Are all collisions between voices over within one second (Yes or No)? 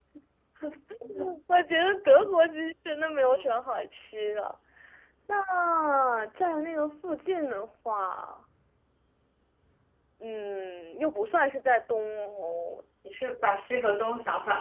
Yes